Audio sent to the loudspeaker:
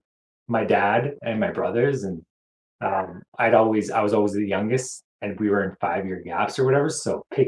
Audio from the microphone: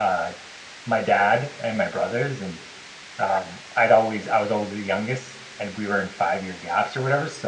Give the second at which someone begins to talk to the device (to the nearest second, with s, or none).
none